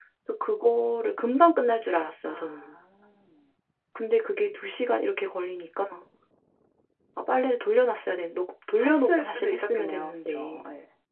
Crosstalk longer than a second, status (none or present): present